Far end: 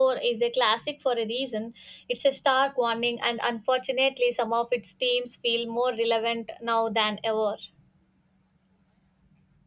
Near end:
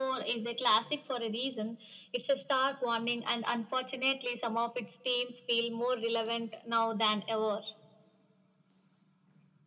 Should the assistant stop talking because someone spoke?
No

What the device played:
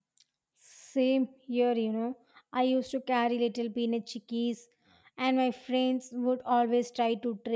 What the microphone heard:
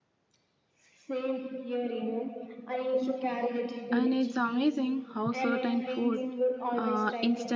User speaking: Yes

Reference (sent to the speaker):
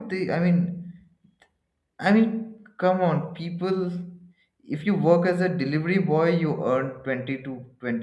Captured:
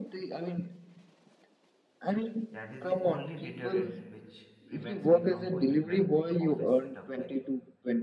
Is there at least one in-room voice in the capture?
Yes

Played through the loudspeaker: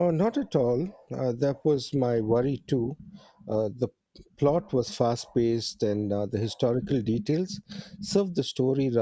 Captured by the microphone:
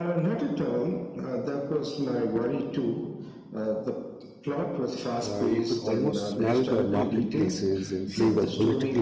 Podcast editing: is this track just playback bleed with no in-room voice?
No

